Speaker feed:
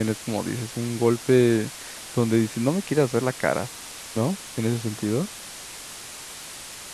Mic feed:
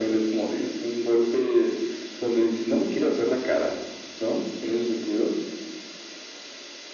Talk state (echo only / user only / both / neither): echo only